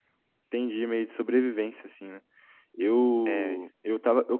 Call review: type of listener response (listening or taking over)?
listening